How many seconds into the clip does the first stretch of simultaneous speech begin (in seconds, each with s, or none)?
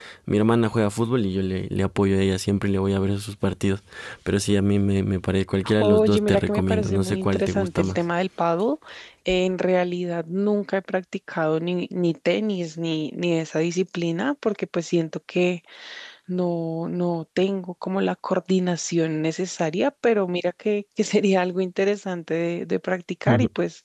5.8 s